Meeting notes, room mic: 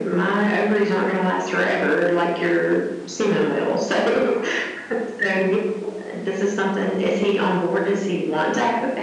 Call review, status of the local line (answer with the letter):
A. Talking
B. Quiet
B